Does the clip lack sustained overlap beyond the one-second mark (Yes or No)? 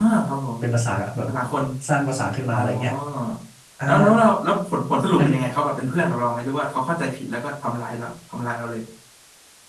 Yes